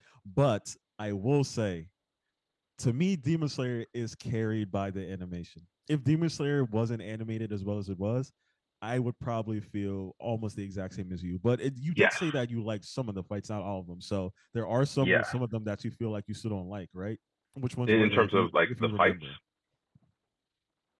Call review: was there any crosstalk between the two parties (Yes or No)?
Yes